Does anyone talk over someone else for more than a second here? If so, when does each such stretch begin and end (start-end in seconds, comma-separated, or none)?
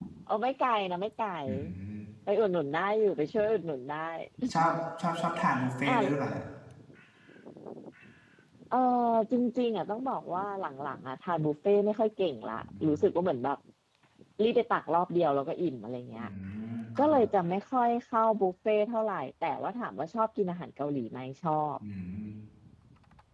none